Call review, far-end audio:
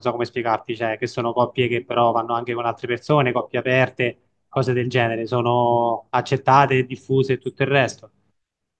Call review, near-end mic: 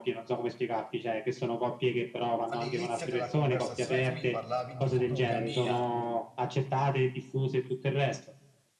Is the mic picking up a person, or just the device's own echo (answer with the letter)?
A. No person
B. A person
B